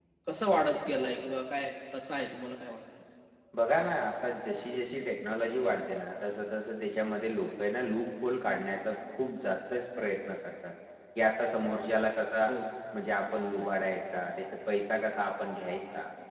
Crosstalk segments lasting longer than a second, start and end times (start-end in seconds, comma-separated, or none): none